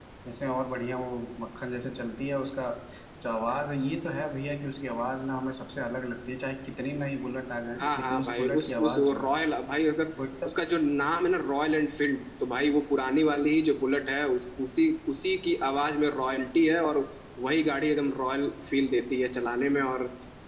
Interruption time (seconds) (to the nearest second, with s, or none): 8 s